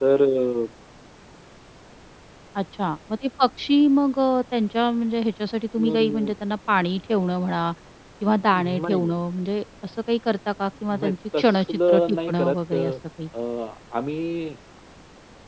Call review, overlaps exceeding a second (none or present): present